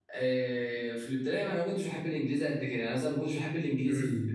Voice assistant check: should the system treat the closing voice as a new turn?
Yes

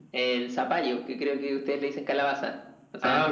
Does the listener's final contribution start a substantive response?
No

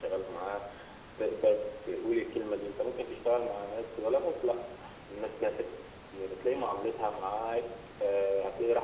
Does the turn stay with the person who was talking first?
No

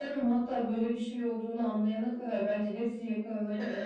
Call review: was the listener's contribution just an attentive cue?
No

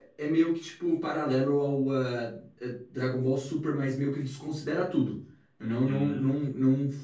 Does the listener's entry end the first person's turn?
No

